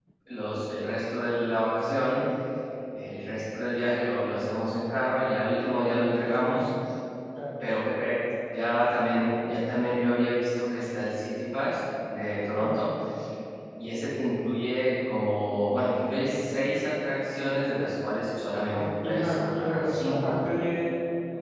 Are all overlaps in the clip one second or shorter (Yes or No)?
No